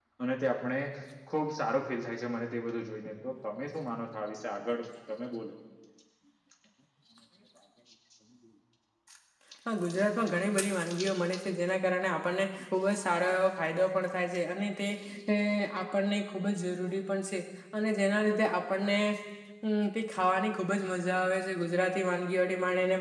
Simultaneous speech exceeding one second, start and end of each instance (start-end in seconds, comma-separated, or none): none